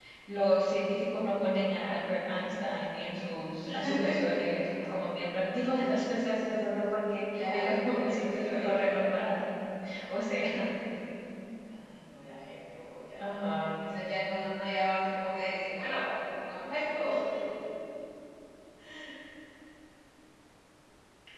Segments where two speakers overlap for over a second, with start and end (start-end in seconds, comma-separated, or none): 7.3-9.3